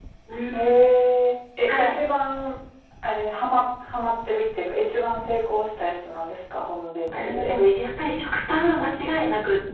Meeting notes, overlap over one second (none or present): none